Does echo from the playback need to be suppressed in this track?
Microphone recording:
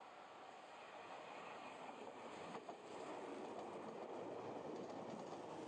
No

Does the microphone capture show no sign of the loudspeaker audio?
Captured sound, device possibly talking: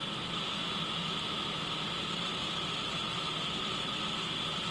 Yes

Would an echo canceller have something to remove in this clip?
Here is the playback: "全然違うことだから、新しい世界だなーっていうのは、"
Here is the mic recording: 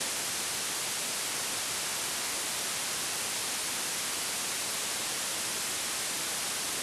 No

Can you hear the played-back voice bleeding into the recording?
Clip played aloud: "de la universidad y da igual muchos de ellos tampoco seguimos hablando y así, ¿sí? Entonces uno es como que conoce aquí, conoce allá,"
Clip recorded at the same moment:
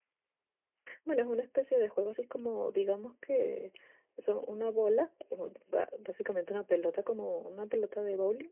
No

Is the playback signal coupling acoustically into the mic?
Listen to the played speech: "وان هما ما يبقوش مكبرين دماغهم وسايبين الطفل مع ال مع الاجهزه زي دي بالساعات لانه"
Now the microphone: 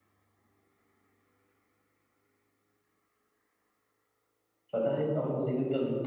No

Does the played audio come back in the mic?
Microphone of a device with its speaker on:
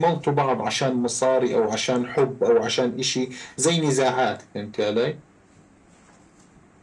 Yes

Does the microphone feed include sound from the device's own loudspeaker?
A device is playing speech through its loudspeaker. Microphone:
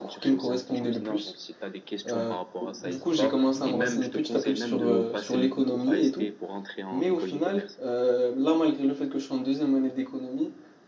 Yes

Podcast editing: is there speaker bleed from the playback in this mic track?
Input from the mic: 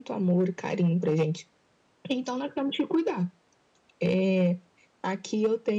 Yes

